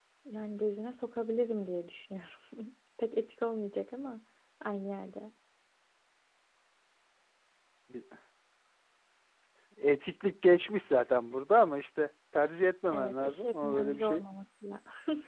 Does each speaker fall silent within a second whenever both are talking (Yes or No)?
No